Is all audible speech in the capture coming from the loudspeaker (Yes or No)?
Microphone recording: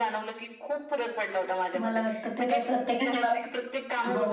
No